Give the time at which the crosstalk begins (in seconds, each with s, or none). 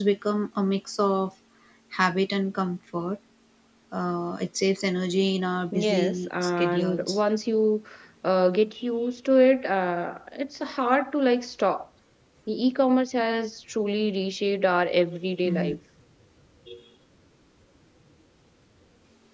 5.7 s